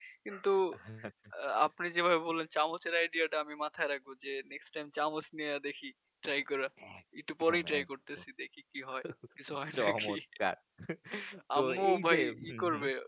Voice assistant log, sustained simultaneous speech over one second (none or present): present